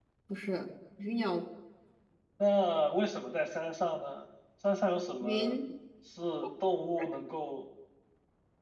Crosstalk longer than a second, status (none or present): none